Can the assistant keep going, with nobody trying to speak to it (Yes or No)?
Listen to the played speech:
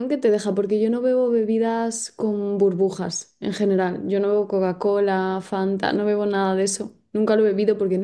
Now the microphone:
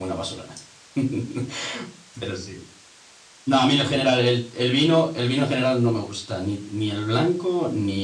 No